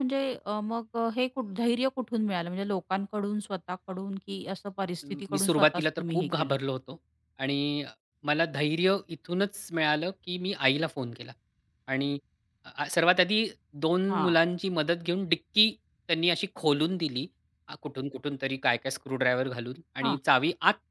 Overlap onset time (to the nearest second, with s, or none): 5 s